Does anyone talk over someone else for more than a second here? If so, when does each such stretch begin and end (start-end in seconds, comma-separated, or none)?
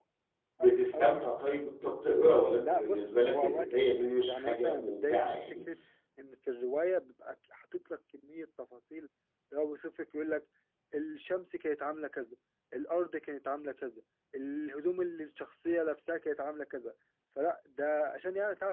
2.6-5.4